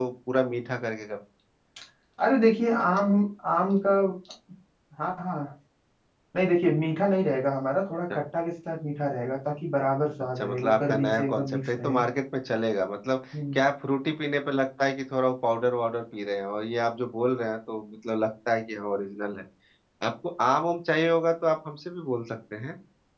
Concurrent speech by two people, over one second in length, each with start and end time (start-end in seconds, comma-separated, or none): 10.4-12.0